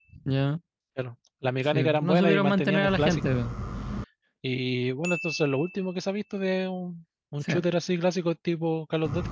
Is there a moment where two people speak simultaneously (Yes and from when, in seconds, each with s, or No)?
Yes, from 1.7 s